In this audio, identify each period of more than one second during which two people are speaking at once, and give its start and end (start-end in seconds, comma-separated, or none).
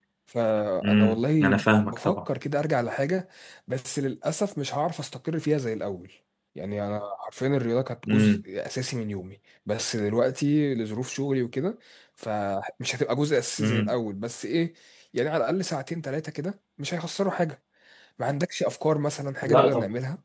0.8-2.2